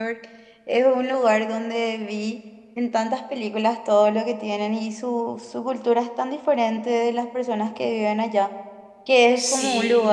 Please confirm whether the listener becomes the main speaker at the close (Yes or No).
No